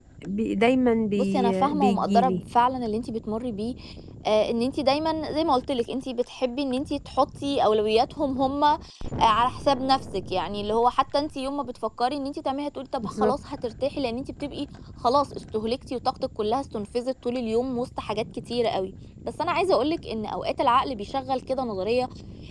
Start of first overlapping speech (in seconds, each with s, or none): 1.2 s